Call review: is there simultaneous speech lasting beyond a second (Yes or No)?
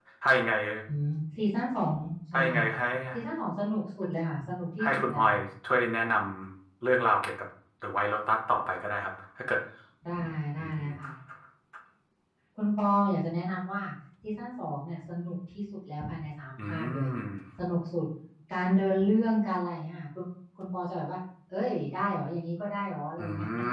No